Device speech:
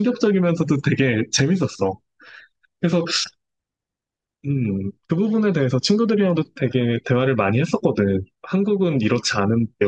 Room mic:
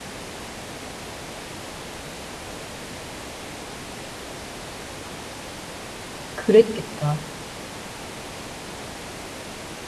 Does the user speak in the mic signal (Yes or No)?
Yes